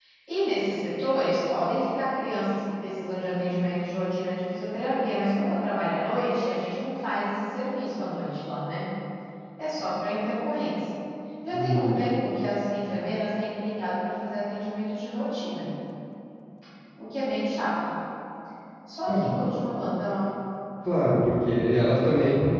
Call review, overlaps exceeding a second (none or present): none